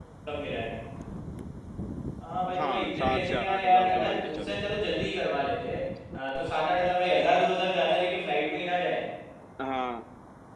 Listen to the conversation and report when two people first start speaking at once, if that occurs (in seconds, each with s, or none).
2.6 s